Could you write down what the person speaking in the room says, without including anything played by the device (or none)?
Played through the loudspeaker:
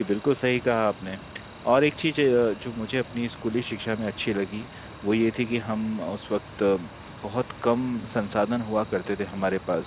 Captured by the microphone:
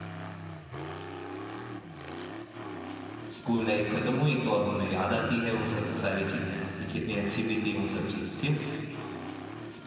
स्कूल लाइफ खत्म हुई तो अब हमें याद आती है वो सब सारी चीजें कि कितनी अच्छी भी थी वो सब चीज क्यों